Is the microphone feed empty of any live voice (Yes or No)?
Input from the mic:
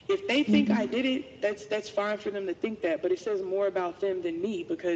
No